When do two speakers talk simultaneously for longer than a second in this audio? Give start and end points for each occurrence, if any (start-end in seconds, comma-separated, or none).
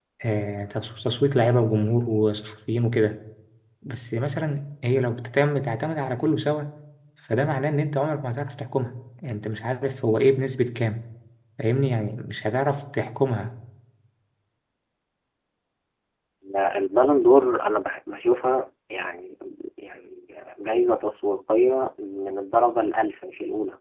none